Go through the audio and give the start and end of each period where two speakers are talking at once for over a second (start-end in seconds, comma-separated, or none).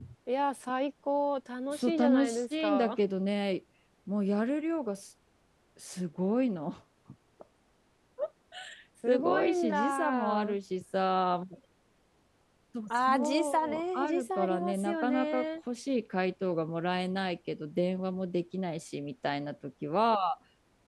1.7-3.0, 9.1-10.6, 13.1-15.5